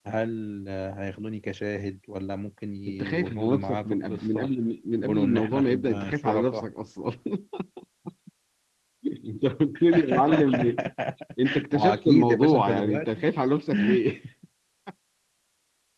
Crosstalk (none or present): present